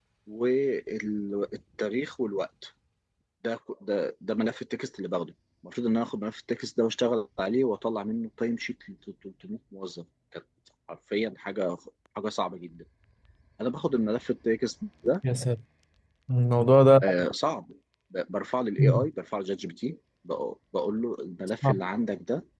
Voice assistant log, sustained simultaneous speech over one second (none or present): none